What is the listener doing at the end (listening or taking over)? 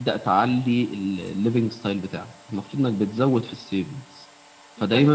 listening